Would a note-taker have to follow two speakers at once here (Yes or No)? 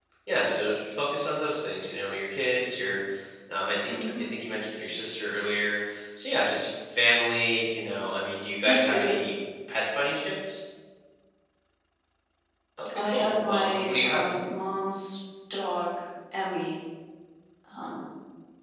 Yes